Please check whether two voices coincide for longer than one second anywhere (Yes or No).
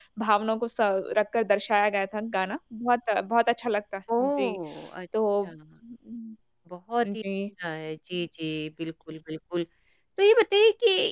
No